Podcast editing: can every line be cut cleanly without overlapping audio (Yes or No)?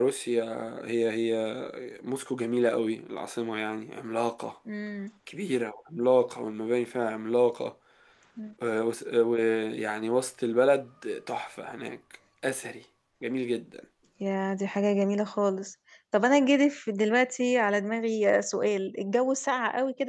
Yes